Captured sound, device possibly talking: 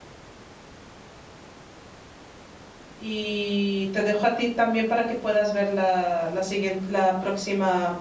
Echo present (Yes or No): No